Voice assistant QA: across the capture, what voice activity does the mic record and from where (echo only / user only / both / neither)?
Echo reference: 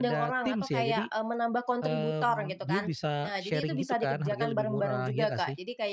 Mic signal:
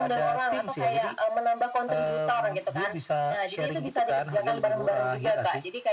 echo only